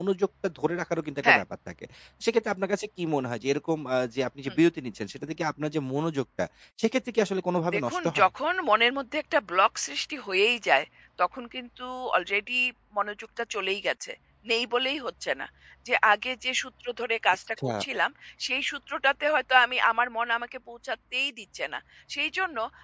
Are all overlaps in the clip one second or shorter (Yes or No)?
Yes